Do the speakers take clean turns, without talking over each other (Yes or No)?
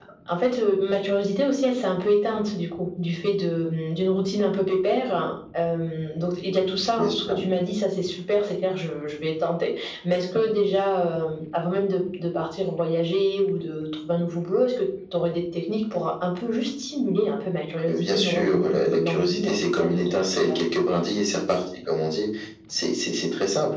No